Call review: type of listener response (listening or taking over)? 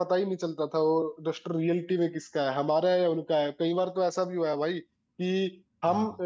listening